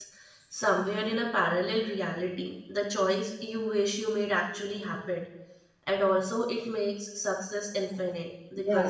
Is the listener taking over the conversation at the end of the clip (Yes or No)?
Yes